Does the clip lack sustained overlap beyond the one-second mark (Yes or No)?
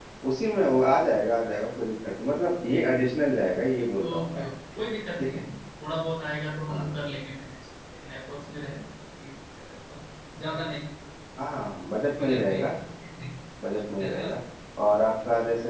Yes